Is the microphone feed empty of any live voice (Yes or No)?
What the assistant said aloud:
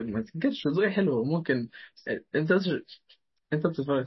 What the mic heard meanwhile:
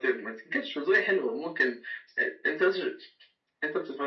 Yes